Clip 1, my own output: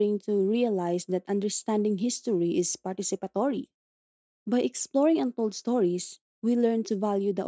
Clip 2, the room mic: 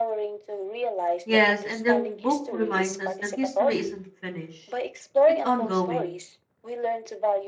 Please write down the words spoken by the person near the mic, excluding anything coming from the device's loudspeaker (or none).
Yes, and the book reminds us that history isn't finished, it's ongoing.